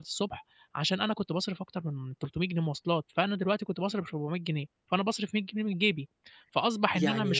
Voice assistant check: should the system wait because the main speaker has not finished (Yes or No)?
Yes